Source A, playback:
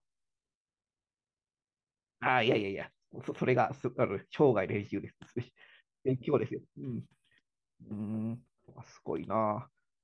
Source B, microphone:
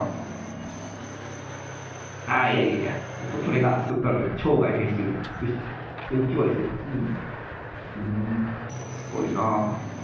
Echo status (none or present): present